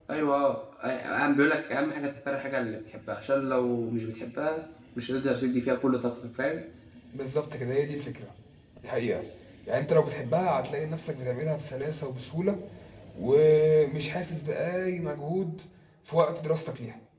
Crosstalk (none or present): none